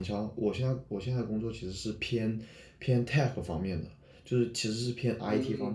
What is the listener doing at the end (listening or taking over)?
listening